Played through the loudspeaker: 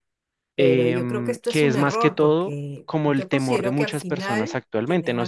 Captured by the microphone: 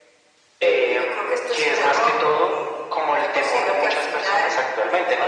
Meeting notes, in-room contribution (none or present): none